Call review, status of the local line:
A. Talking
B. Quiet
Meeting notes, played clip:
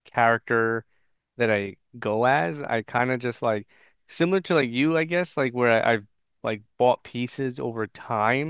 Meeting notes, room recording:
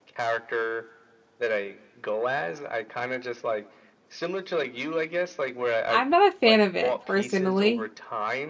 A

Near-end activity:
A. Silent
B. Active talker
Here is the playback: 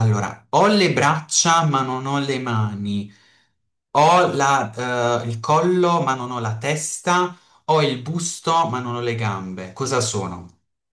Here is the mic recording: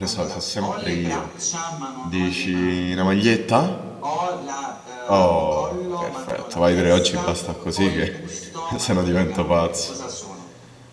B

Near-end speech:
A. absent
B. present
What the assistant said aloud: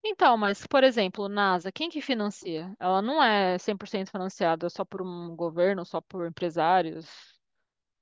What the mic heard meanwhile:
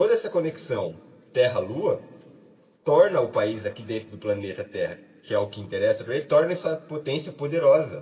B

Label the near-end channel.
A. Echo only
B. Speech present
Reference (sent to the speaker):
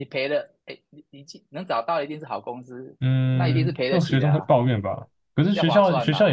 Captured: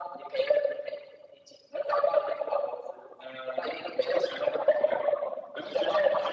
A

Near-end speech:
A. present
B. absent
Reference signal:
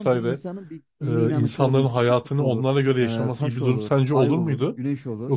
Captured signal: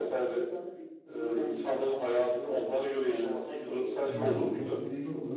A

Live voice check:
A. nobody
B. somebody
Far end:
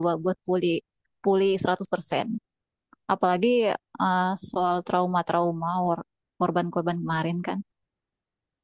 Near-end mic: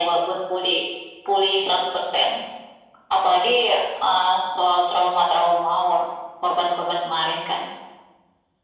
A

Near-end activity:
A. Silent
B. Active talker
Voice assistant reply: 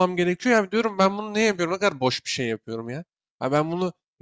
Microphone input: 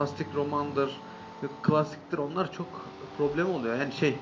B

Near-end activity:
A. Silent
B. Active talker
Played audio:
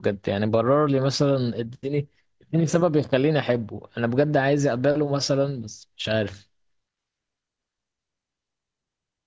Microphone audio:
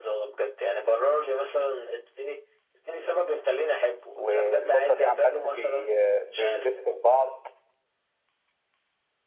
B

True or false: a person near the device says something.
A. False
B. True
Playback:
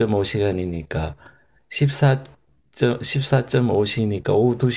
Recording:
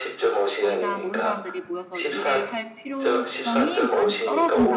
B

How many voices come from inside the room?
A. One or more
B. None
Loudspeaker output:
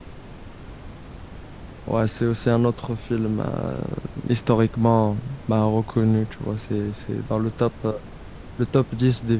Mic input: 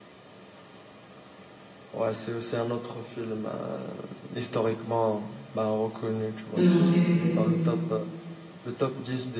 A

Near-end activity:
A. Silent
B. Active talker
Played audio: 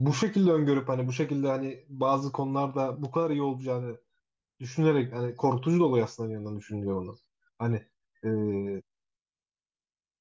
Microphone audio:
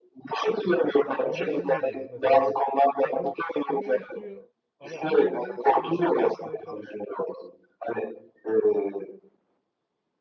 B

